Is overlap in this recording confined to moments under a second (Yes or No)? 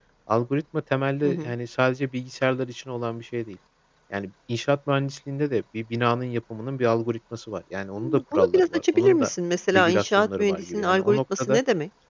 No